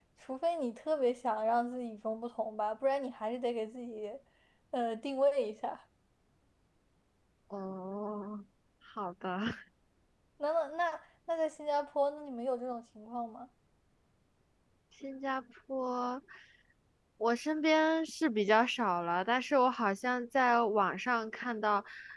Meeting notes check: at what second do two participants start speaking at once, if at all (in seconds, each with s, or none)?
none